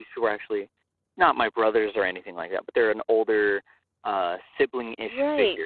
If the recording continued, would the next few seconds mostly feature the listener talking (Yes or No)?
Yes